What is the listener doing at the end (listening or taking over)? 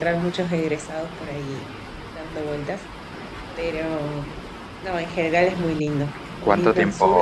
taking over